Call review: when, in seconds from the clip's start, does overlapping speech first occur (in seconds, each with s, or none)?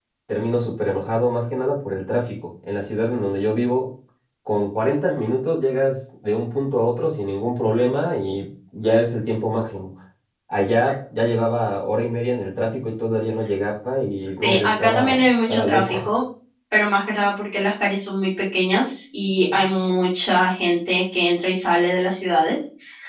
14.4 s